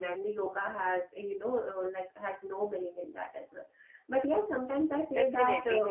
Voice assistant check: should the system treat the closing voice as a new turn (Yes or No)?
Yes